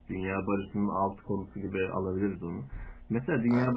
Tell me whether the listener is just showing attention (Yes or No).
Yes